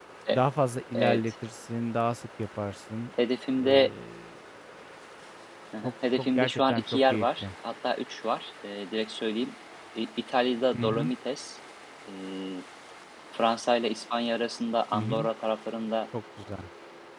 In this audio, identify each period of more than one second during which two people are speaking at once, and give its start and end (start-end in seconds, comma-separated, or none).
5.8-7.5